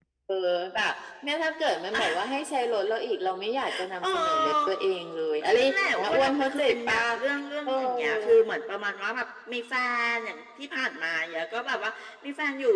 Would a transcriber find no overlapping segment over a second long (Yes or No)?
No